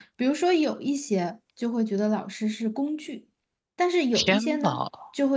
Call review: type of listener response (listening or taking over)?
listening